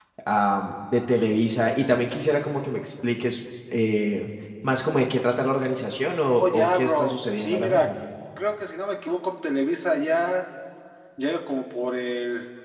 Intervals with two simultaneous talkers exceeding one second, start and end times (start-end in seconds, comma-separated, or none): 6.4-7.9